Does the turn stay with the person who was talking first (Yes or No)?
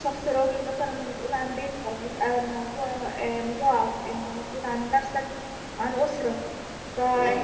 Yes